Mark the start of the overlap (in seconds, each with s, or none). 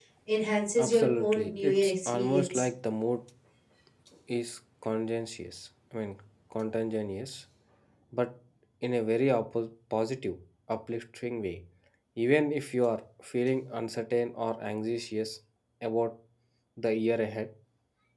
0.8 s